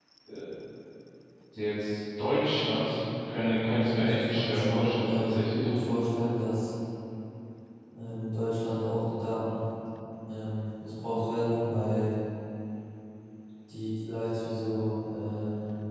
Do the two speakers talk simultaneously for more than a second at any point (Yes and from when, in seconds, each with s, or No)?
Yes, from 4.0 s